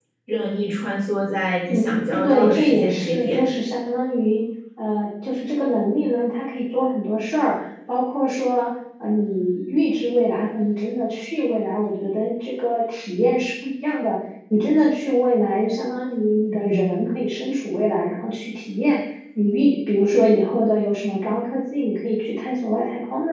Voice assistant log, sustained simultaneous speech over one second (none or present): present